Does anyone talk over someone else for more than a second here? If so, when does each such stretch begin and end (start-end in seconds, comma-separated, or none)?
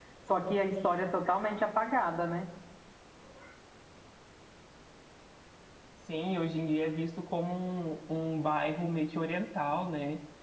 none